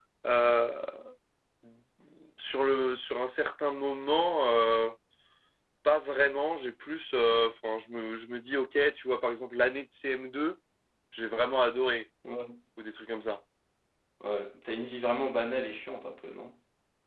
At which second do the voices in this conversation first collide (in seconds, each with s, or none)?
none